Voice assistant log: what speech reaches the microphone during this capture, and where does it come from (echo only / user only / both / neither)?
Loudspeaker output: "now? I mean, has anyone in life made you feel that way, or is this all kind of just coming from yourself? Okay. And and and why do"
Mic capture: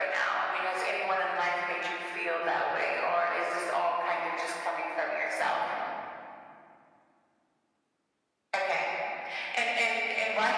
echo only